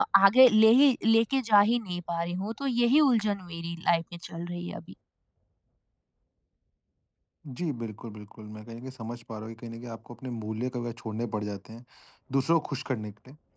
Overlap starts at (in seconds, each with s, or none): none